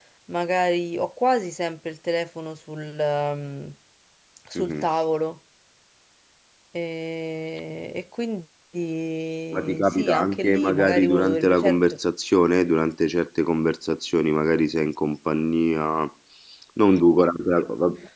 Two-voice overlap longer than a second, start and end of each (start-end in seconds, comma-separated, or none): 9.8-12.0